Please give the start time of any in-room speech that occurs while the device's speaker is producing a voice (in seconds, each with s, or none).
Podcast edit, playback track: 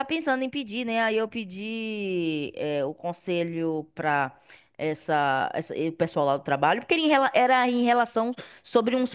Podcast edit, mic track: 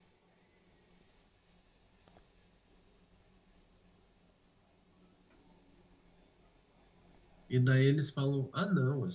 7.5 s